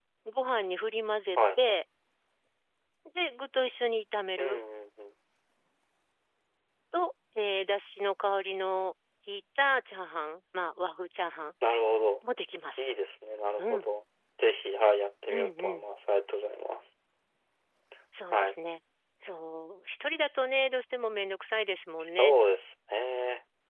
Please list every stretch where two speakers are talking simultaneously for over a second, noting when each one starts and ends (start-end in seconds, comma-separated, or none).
none